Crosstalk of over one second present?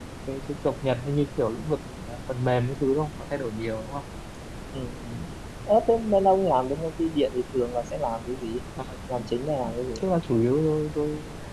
No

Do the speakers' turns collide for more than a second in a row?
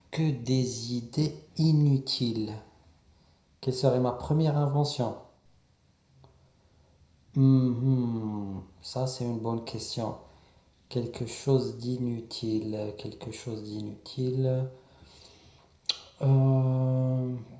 No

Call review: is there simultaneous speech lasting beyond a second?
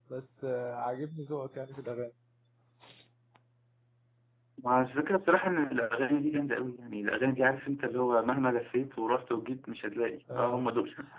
No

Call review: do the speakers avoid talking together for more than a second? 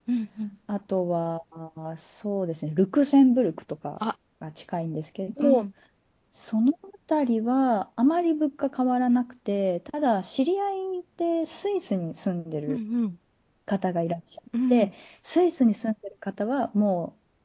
Yes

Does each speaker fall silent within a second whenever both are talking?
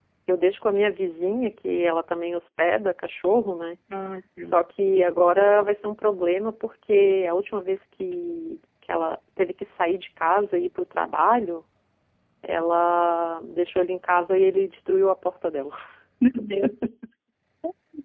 Yes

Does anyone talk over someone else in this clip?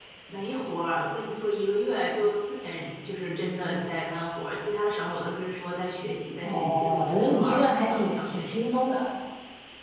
Yes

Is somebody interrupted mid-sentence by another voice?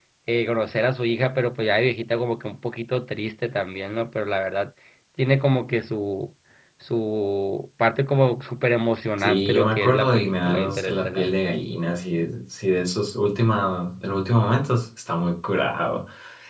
Yes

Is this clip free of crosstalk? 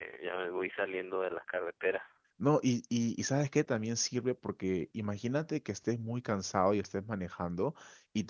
Yes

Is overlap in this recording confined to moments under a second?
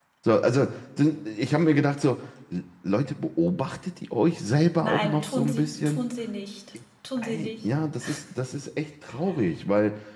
No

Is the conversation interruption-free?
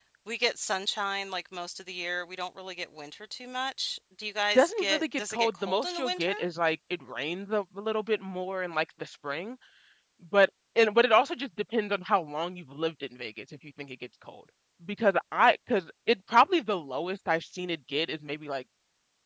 No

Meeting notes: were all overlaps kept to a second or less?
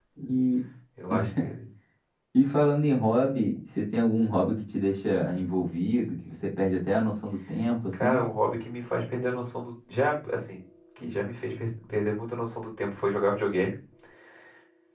Yes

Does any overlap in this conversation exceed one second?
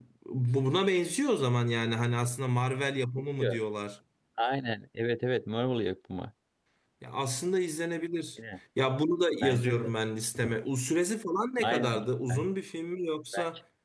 No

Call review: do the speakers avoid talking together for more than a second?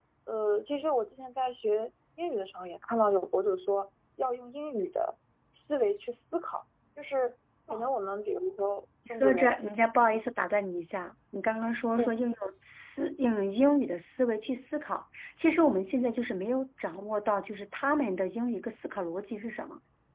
Yes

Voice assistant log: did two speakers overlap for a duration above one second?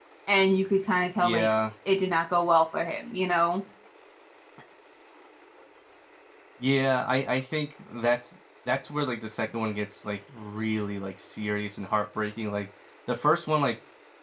No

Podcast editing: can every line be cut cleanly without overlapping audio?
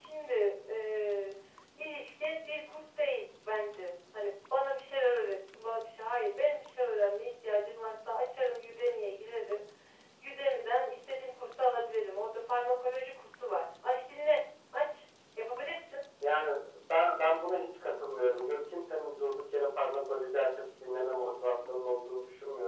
Yes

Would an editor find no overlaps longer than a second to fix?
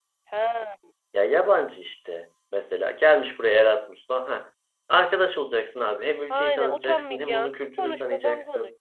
No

